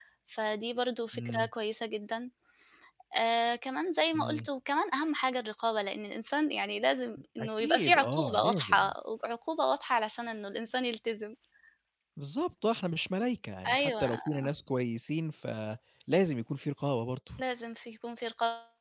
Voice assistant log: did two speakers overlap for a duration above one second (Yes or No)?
Yes